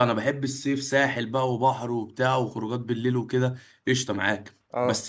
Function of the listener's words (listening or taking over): listening